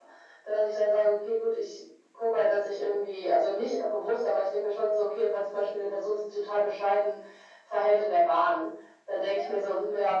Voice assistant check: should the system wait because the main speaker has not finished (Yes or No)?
Yes